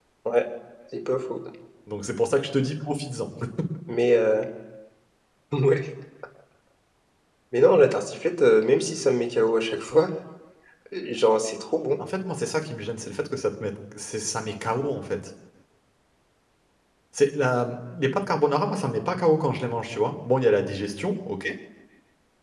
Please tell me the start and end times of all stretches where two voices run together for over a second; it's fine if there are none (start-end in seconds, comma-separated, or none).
none